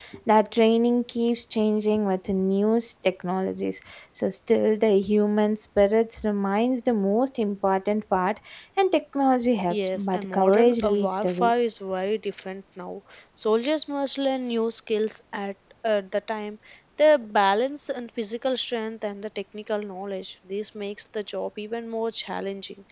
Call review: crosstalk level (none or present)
present